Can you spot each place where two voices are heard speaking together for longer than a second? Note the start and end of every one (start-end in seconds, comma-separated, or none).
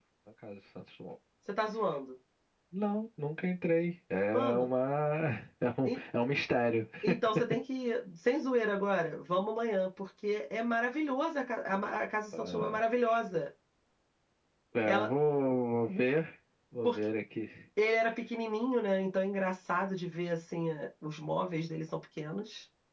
none